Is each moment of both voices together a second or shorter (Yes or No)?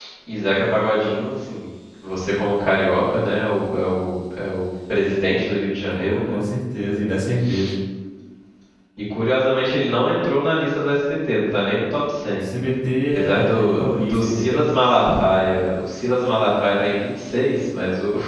No